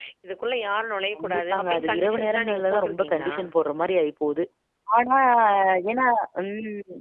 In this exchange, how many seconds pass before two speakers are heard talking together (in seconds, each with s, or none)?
1.2 s